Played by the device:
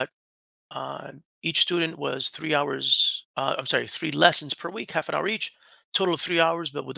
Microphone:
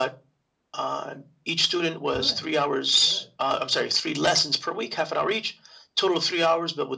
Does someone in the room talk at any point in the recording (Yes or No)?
Yes